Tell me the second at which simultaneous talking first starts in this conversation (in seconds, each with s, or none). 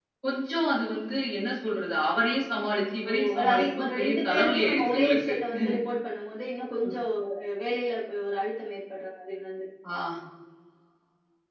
3.0 s